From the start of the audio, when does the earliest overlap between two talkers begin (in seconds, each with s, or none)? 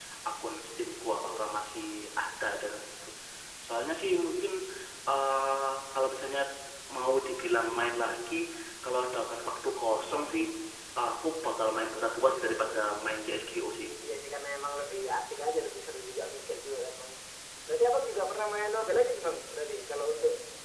none